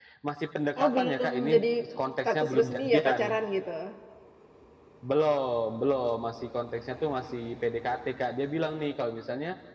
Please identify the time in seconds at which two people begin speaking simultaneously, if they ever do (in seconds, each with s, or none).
0.8 s